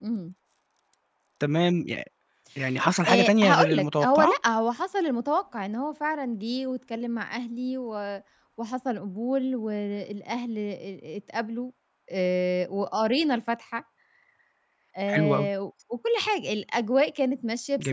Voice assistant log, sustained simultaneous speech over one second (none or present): present